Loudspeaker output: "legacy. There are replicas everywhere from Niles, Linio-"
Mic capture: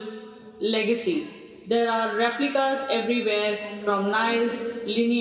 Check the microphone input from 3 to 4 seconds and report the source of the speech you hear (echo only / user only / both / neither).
both